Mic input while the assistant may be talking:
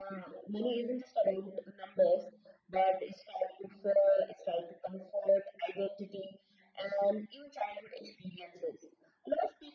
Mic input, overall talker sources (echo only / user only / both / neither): echo only